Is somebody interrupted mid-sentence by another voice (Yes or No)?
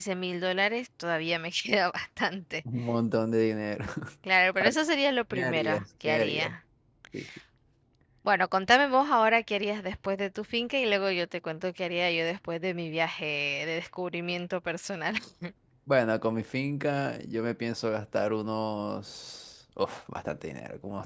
Yes